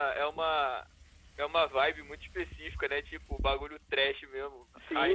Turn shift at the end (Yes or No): Yes